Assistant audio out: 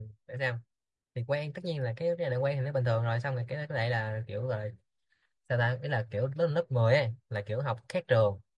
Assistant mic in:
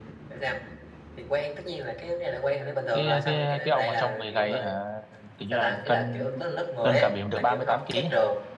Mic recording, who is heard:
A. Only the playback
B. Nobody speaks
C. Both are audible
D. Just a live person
C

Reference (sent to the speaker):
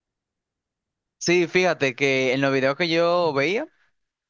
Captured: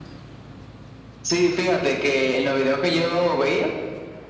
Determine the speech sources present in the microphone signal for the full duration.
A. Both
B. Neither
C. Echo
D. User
C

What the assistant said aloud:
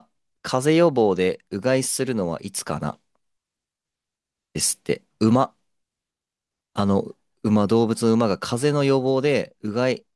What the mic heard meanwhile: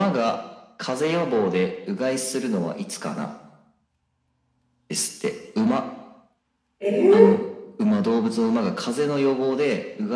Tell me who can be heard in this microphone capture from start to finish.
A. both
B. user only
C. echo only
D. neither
A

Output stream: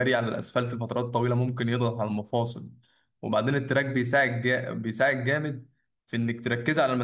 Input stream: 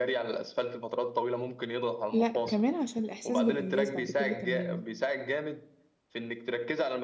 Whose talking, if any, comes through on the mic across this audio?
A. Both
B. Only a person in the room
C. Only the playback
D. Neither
A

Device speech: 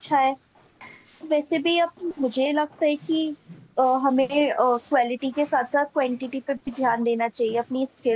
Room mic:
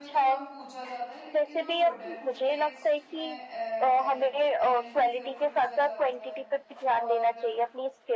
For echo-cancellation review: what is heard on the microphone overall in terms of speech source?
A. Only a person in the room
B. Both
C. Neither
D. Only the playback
B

